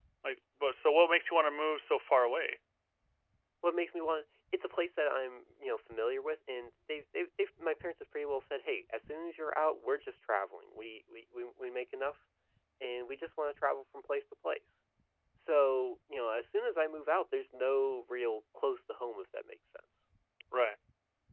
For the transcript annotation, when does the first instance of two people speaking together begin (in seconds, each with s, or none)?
none